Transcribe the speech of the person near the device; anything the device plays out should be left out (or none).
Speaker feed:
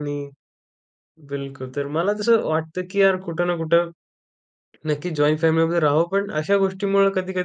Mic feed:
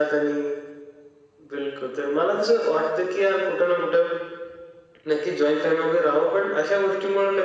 none